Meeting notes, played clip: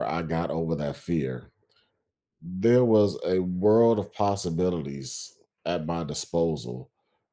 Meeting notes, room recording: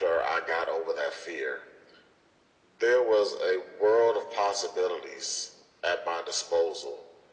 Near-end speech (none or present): none